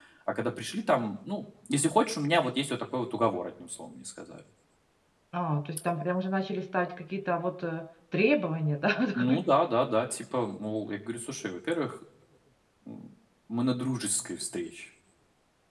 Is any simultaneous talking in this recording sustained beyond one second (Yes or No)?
No